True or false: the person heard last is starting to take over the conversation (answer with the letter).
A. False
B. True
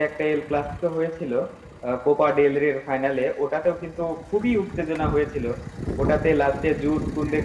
A